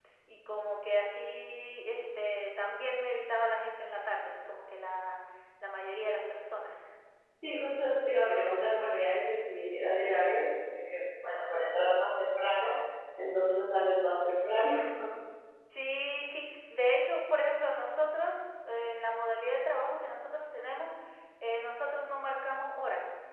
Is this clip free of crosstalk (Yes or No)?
Yes